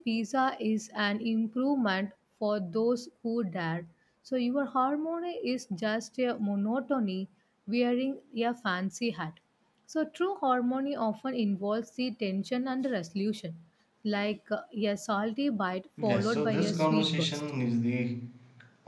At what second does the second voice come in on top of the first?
16.0 s

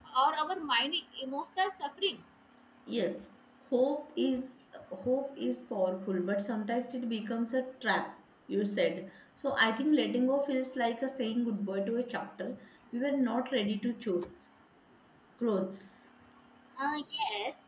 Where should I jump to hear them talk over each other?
none

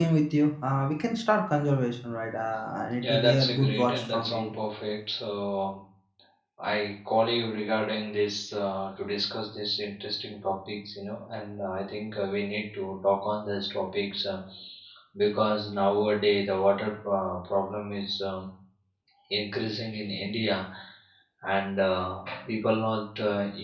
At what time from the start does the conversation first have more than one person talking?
3.0 s

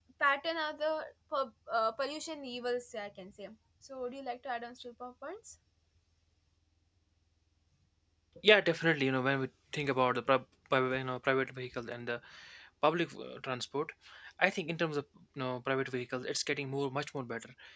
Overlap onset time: none

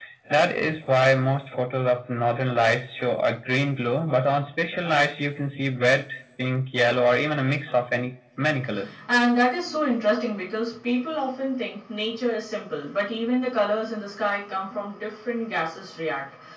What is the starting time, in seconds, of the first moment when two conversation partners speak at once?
none

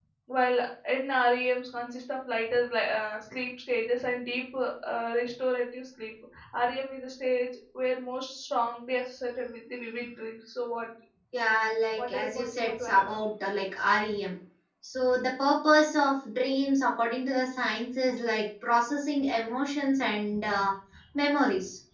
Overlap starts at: 12.0 s

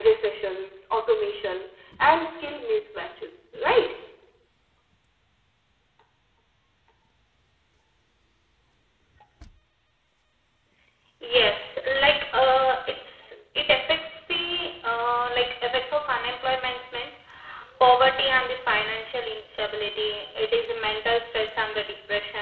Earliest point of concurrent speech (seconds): none

